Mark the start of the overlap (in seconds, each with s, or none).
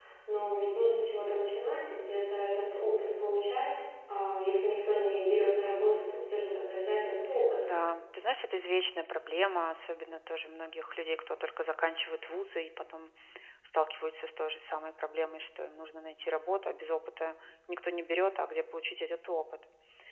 none